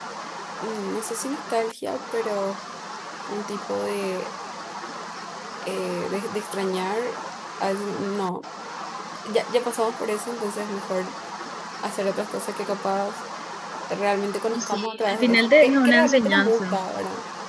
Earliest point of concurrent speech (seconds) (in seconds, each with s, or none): 14.5 s